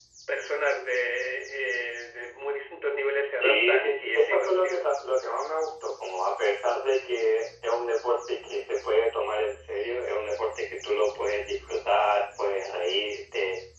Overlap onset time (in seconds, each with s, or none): 3.4 s